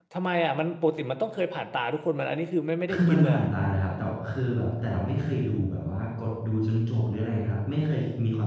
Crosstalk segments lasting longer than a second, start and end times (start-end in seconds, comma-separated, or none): none